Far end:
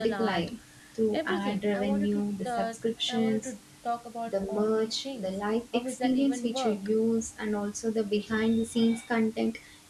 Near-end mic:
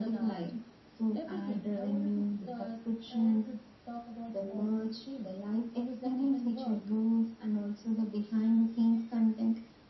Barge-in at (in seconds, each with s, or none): none